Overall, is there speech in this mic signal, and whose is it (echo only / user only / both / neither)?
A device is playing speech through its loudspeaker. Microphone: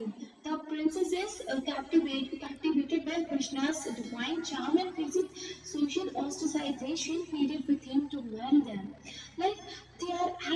echo only